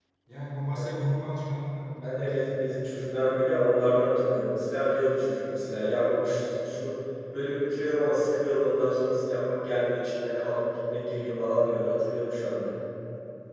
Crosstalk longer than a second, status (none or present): none